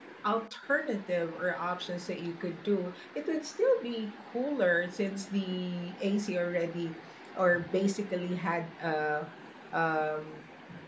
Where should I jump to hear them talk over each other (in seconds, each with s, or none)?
none